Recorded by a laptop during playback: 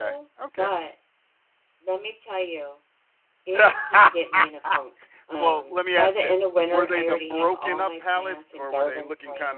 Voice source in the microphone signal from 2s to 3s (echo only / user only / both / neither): echo only